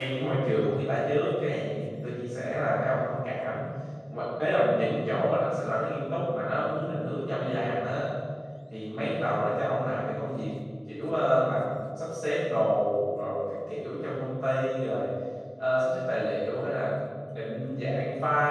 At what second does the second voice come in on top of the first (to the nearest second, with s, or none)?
none